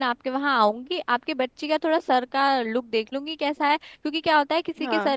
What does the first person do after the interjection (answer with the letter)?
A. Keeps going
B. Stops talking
A